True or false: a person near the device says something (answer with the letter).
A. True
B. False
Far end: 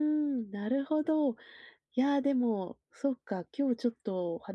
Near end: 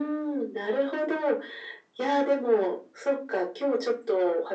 B